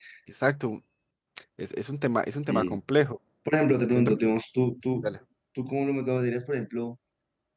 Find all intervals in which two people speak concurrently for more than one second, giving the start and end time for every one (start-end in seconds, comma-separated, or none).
none